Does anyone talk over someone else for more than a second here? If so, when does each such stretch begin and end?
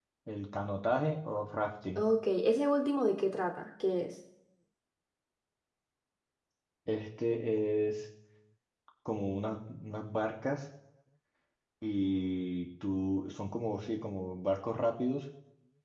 none

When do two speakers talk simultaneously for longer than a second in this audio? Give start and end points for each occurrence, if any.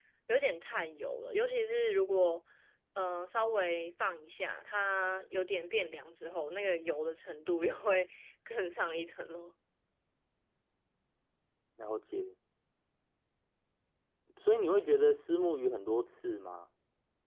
none

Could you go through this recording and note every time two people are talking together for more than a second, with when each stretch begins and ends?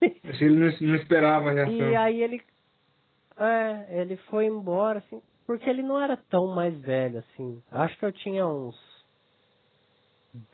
none

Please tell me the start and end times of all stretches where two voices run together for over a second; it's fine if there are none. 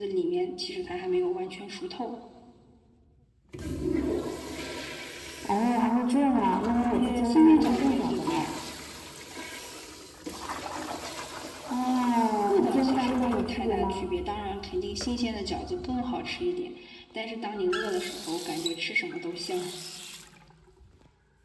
7.0-8.5, 12.5-14.1

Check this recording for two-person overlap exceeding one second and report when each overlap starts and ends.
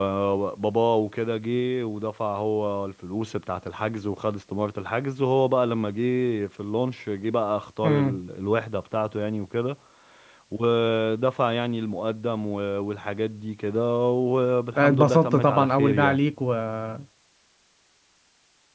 14.8-16.2

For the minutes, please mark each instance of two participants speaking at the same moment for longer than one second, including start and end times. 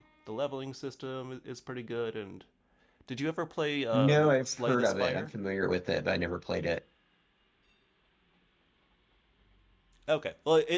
3.9-5.3

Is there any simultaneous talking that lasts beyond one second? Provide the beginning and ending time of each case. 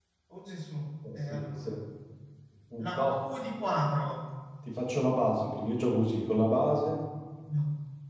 none

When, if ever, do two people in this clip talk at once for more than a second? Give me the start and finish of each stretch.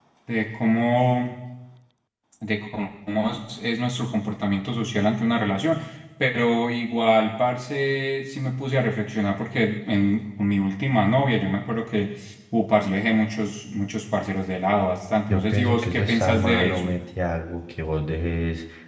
15.3-16.9

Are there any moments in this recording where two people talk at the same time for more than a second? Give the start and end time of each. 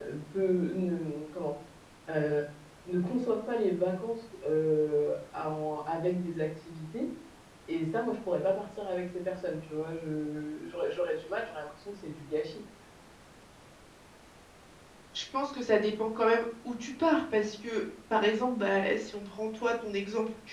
none

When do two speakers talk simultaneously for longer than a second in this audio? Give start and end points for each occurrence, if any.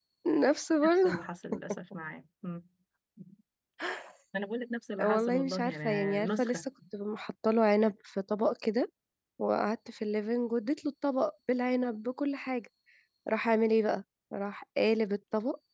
5.0-6.6

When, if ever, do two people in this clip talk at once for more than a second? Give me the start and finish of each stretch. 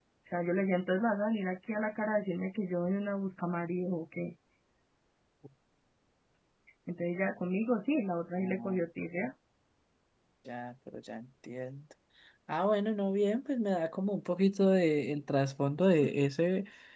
none

